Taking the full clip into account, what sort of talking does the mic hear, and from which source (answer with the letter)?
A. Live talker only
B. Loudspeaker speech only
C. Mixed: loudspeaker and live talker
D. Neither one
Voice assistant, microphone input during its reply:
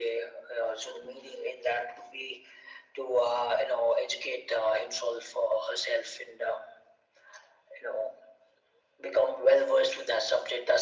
B